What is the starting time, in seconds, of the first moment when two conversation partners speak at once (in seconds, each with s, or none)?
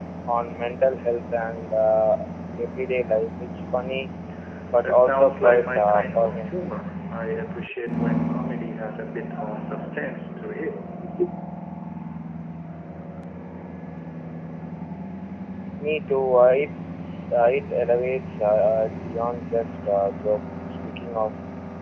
4.8 s